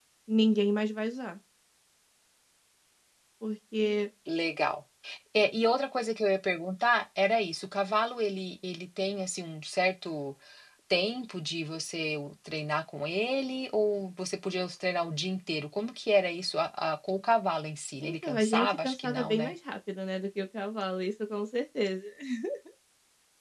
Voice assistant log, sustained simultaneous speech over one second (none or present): present